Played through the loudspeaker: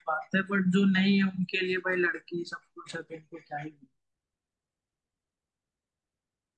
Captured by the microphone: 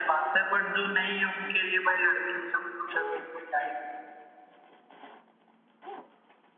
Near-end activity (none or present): none